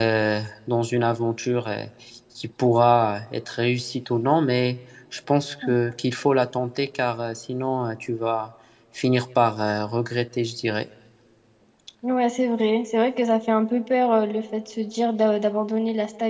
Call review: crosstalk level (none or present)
none